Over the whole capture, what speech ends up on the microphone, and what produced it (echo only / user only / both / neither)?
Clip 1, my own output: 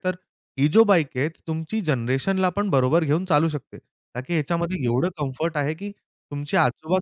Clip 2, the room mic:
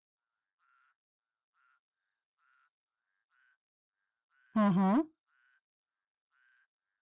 user only